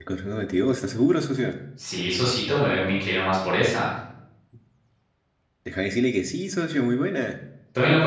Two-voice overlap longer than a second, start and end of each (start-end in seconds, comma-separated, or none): none